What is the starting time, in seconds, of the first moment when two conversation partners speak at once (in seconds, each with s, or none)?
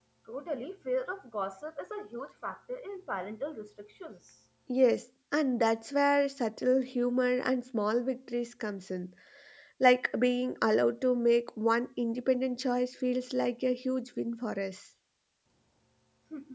none